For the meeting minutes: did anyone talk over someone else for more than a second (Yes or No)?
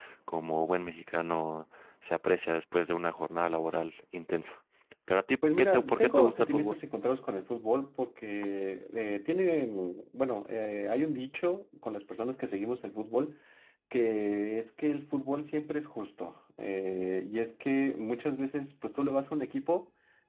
Yes